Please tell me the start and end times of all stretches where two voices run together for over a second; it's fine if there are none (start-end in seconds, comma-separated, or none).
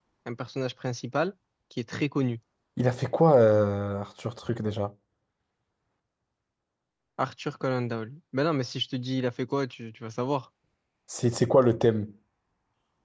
none